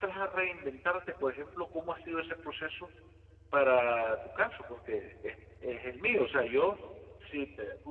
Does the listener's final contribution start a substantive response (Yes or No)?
No